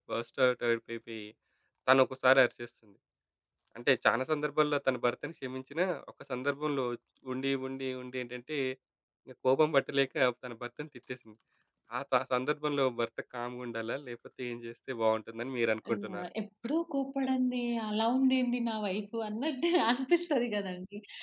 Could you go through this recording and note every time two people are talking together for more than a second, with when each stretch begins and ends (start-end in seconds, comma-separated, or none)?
none